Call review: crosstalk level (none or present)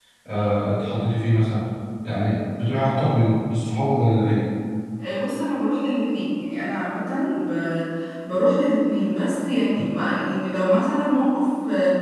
none